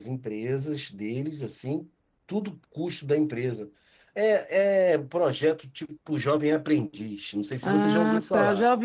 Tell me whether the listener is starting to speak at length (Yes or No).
Yes